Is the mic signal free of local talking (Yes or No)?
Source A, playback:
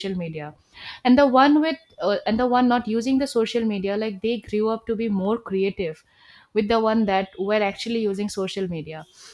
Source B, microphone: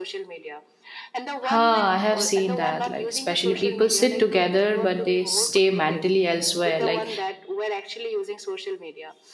No